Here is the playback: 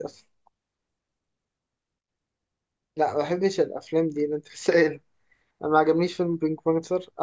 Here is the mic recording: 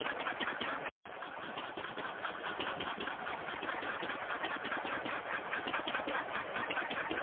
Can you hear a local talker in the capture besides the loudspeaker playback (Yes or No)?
No